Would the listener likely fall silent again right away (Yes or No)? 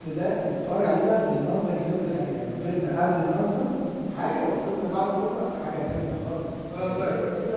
No